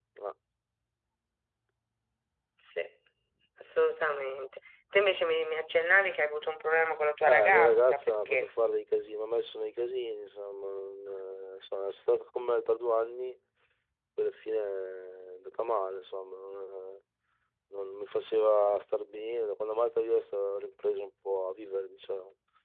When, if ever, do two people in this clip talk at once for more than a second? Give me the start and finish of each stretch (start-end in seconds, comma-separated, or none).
7.3-8.5